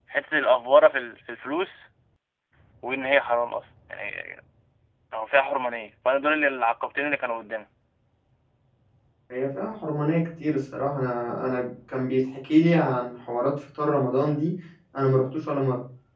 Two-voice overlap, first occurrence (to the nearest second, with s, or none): none